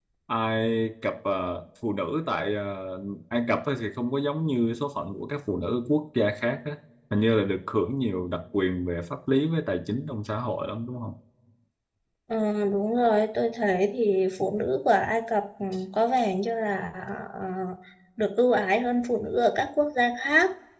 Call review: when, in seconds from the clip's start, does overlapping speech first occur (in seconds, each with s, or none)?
none